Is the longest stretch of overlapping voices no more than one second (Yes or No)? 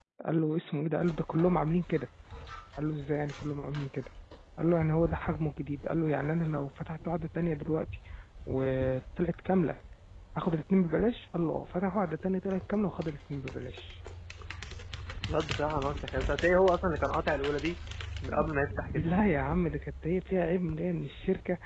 Yes